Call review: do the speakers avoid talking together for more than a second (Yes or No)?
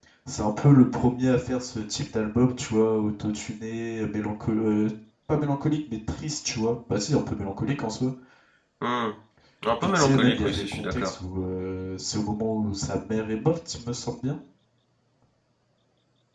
No